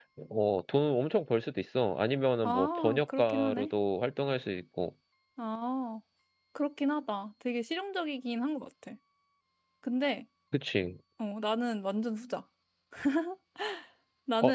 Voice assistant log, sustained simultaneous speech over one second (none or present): present